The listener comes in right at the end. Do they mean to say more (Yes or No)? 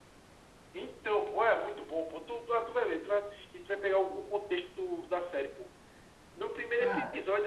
No